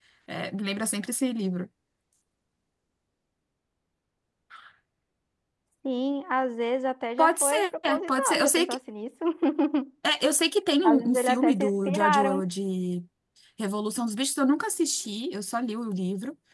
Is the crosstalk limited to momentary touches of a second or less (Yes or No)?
No